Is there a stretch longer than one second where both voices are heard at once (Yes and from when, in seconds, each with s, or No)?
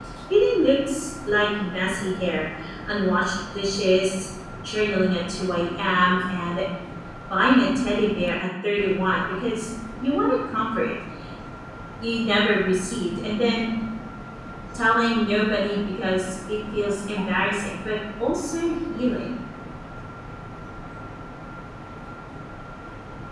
No